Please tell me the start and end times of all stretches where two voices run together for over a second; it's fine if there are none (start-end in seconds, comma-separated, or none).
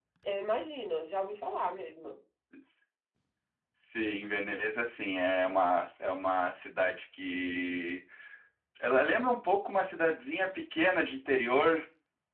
none